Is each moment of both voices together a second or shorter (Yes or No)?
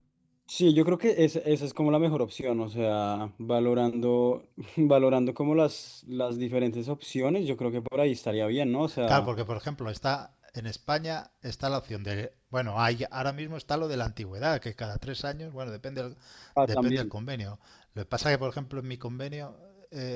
Yes